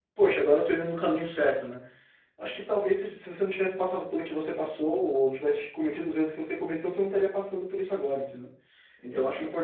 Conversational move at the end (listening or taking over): listening